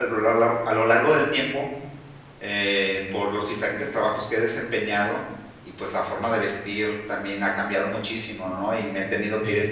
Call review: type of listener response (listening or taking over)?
listening